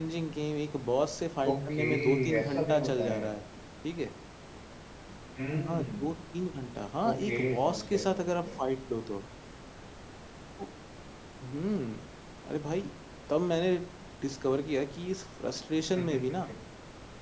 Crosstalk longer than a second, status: present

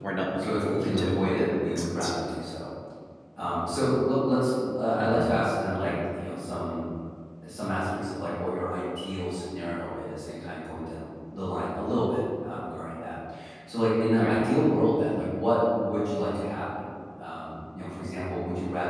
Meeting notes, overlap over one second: present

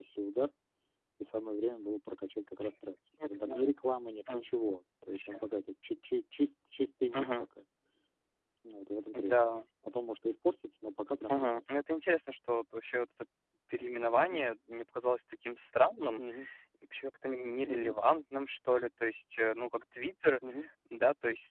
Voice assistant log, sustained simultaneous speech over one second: none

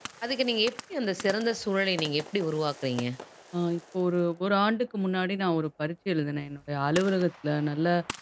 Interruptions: none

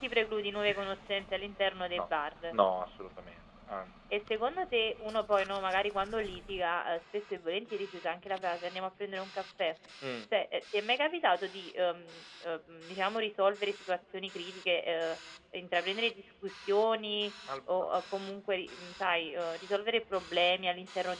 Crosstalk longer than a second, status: none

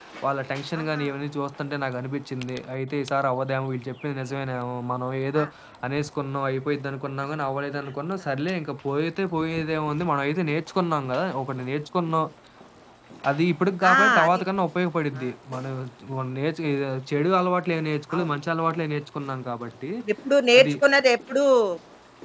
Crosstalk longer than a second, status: none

